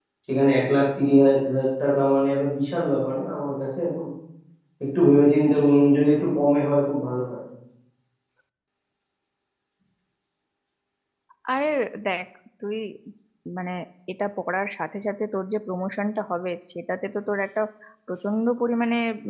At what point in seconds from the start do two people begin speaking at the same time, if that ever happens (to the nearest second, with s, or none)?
none